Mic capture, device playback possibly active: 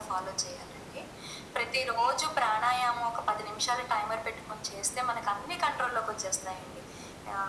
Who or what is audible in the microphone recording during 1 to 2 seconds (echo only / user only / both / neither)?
echo only